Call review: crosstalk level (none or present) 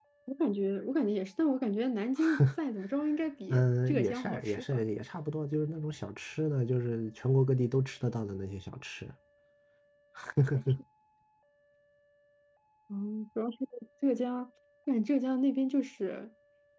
present